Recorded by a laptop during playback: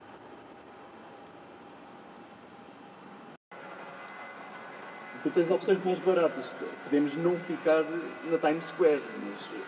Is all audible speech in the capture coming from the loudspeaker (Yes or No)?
No